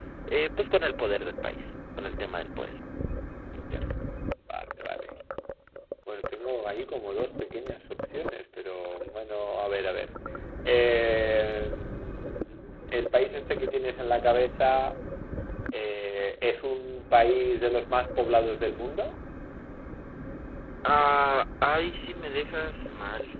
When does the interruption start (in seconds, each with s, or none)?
none